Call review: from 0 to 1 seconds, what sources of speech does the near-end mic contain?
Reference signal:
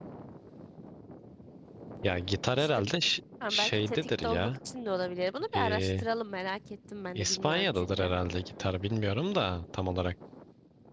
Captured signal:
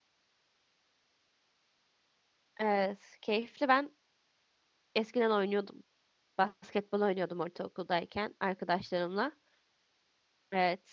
neither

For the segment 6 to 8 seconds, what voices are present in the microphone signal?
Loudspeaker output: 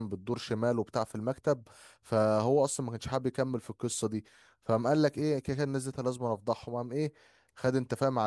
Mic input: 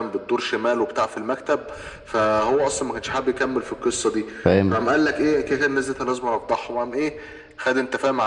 echo only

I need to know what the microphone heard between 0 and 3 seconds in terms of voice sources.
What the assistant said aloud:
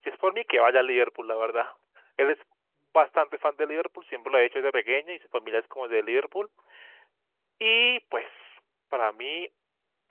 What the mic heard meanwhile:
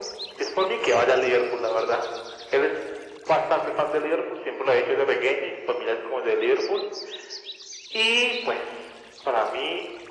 echo only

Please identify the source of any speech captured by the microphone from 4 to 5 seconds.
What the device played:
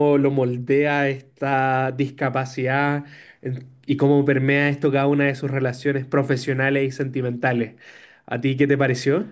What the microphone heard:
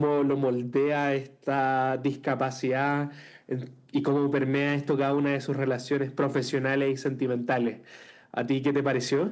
echo only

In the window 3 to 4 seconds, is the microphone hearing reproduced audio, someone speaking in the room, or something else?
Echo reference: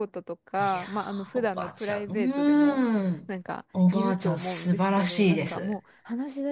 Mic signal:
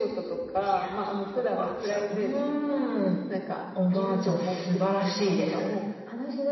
echo only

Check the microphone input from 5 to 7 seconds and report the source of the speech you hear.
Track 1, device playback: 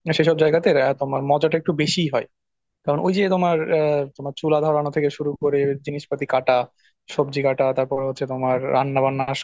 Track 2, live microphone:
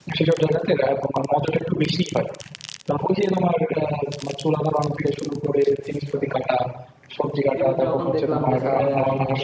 echo only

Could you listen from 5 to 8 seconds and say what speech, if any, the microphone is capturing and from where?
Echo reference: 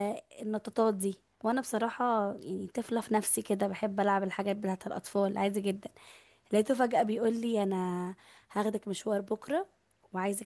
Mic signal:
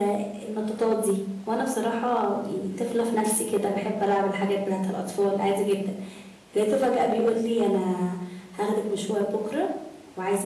echo only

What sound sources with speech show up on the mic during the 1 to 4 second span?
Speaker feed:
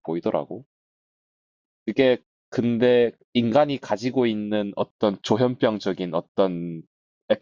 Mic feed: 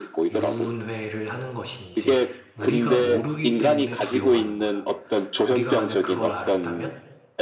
both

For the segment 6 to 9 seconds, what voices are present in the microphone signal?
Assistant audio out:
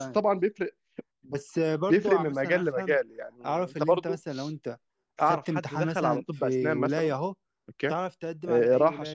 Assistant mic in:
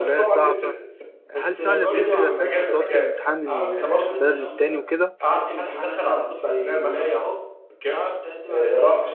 echo only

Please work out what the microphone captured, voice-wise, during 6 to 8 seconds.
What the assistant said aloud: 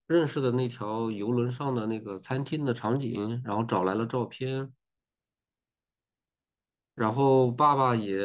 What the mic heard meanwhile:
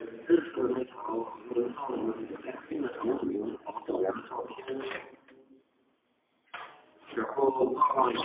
echo only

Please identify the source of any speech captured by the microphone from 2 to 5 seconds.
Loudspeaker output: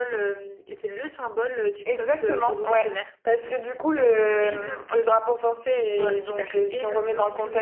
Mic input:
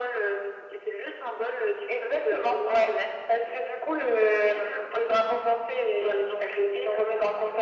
echo only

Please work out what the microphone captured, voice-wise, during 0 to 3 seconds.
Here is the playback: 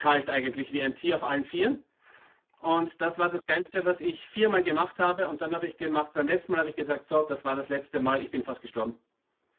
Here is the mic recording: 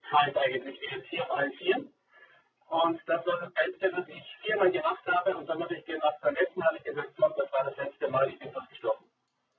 echo only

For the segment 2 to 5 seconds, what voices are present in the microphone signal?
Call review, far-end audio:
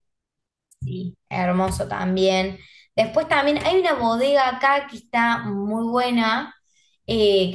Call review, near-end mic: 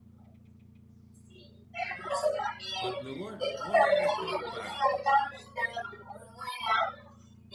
both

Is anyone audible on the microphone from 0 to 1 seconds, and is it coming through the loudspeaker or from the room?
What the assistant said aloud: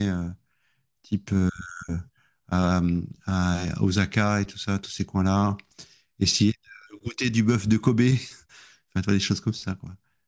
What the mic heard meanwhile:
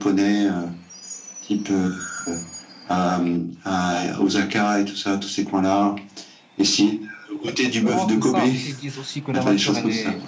echo only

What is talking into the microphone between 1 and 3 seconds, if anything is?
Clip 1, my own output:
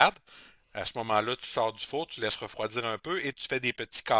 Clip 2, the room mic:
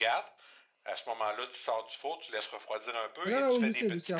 echo only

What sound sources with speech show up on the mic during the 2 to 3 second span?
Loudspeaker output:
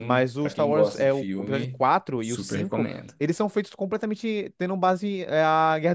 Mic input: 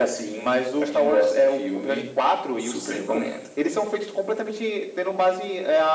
echo only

